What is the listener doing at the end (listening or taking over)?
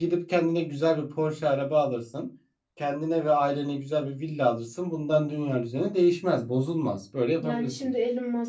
taking over